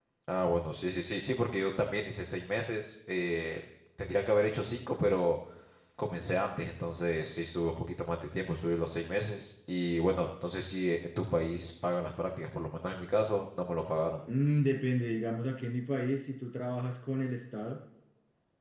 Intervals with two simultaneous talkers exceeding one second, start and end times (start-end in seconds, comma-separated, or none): none